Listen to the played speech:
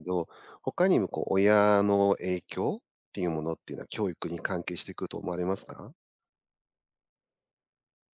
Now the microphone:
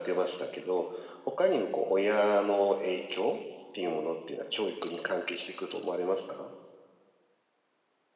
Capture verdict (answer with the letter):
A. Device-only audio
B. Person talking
A